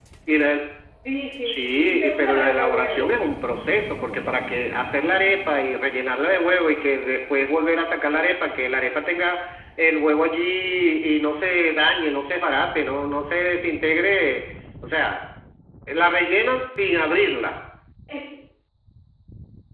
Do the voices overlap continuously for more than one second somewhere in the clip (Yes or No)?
Yes